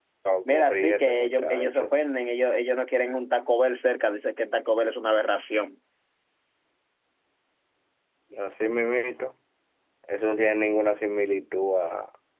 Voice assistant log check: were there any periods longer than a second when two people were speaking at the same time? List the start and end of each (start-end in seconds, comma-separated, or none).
0.5-1.9